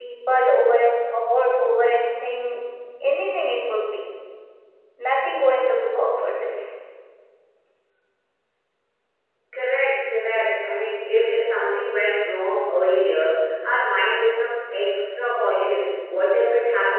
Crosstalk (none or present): none